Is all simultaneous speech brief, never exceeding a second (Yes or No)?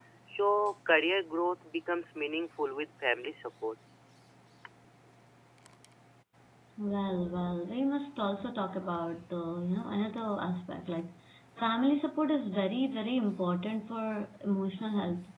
Yes